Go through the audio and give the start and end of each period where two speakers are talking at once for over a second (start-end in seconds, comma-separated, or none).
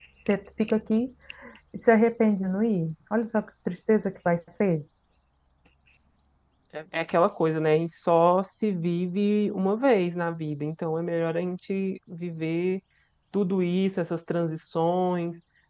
none